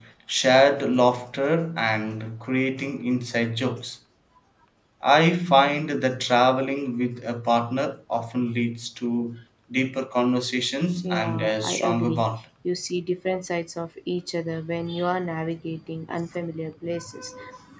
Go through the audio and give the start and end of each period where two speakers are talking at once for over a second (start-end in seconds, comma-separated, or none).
11.0-12.3